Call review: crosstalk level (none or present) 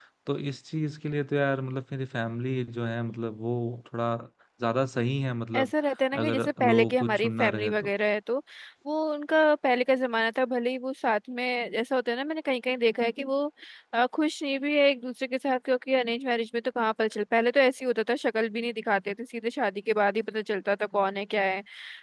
present